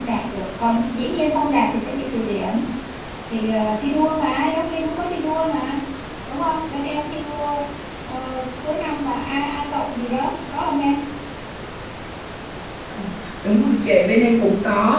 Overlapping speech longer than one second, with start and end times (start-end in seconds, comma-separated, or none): none